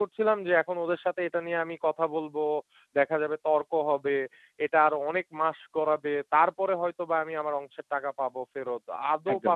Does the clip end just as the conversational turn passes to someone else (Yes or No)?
No